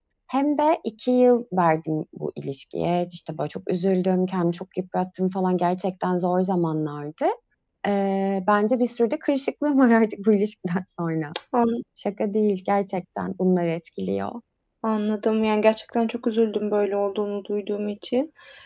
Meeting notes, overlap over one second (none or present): none